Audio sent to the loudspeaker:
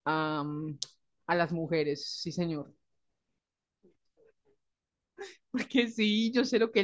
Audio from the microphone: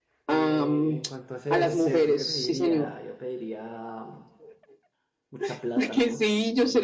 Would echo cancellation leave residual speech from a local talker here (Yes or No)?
Yes